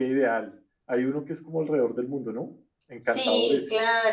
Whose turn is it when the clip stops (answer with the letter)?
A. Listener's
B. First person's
A